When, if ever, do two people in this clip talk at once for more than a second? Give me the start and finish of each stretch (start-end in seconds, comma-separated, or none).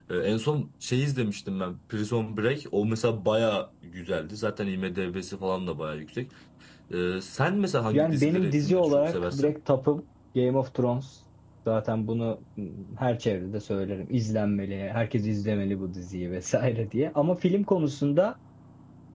7.9-9.5